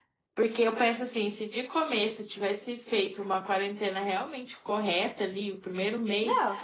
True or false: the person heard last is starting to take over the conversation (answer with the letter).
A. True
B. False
B